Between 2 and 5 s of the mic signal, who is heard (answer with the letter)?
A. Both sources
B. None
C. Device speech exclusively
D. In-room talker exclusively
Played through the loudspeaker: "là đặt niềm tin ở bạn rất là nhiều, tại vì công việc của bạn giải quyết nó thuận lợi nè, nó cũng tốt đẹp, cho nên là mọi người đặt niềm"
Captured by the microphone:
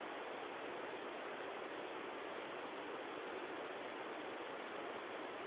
B